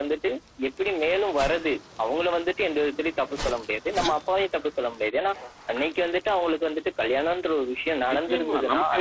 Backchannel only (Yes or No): No